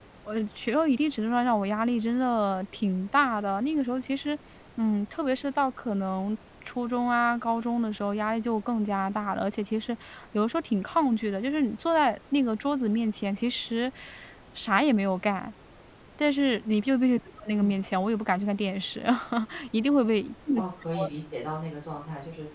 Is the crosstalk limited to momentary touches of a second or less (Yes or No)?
Yes